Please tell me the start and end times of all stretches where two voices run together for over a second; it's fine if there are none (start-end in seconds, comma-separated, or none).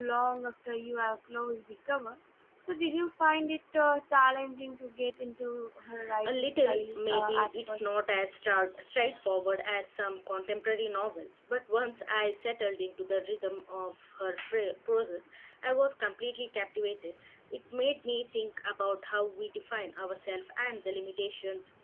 6.3-7.9